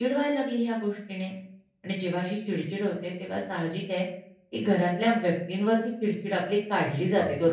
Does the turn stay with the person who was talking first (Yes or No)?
No